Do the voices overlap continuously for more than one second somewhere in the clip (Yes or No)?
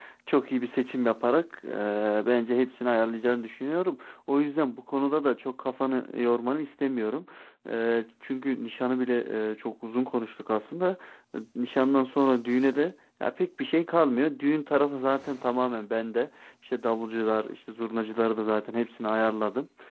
No